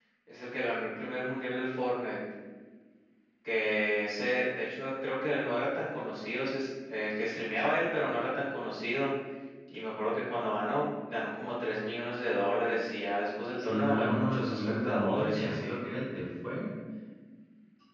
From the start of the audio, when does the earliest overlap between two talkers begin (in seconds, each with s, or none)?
13.6 s